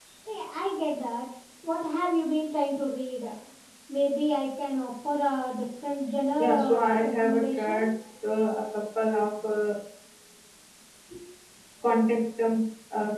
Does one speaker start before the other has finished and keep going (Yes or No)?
Yes